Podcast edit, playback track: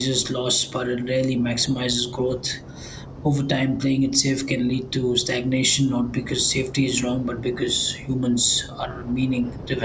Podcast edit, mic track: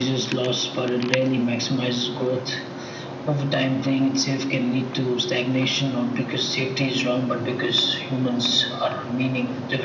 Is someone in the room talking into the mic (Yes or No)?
No